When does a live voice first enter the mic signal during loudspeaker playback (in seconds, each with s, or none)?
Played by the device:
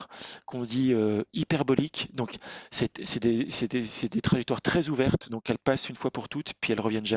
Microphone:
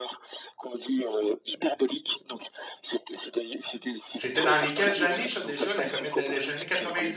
4.1 s